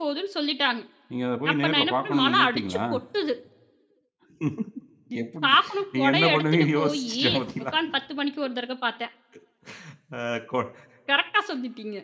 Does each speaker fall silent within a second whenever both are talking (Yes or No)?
No